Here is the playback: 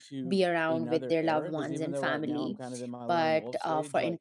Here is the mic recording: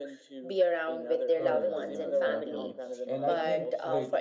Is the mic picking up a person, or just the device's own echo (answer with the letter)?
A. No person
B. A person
B